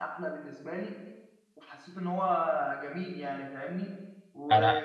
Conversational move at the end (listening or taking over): listening